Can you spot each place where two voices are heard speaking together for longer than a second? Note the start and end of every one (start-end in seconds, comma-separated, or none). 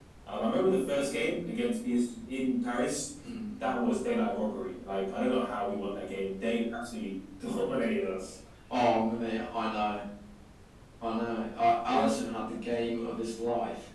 none